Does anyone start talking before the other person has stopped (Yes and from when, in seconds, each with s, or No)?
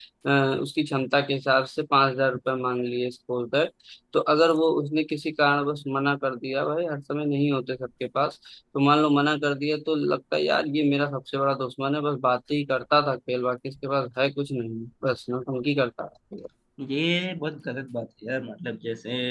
No